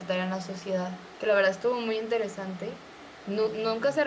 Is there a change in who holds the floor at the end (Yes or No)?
No